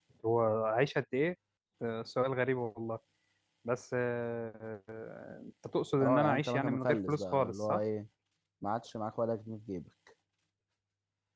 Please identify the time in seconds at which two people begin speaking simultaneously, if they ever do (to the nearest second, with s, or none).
6 s